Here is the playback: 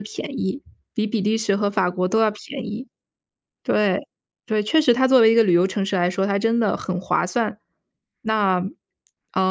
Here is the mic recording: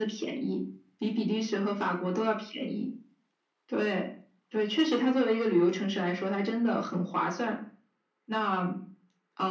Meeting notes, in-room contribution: none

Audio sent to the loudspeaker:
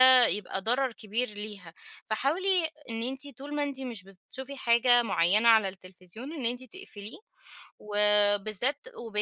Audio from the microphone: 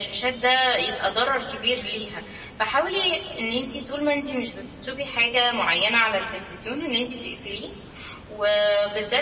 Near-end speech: none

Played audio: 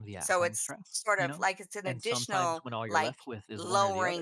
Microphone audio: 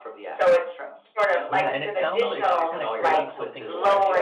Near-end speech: present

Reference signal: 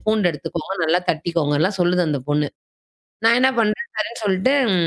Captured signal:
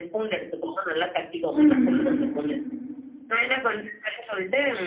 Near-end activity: present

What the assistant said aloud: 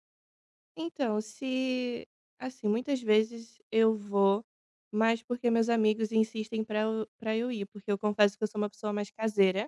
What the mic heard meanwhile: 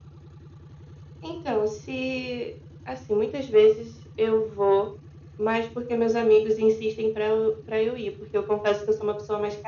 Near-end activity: none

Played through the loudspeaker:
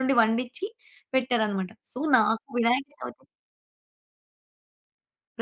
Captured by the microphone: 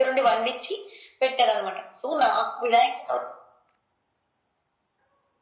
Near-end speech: none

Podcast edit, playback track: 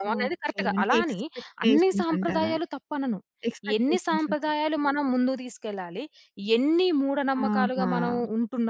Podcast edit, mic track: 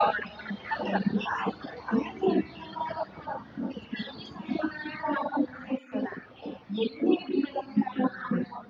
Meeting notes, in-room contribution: none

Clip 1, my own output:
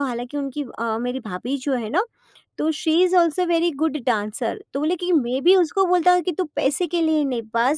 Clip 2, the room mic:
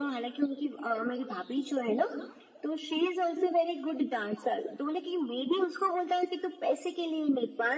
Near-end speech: none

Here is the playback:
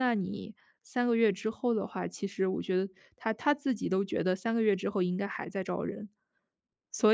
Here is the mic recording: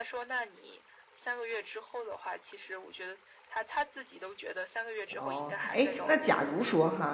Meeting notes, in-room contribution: present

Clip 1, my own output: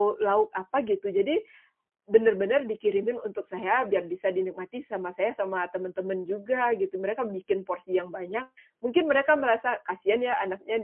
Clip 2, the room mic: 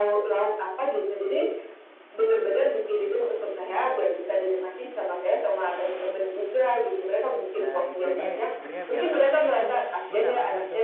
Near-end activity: present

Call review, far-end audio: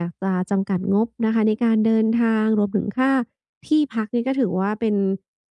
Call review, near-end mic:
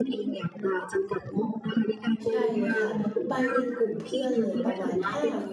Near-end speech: present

